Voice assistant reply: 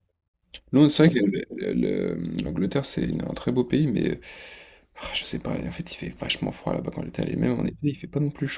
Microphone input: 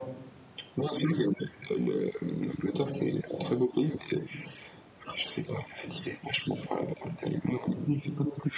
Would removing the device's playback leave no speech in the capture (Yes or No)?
Yes